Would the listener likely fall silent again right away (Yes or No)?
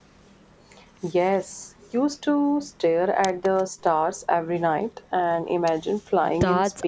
No